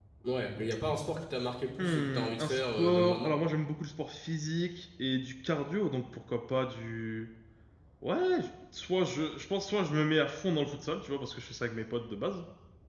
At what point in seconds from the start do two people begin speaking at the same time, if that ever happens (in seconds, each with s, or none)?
1.8 s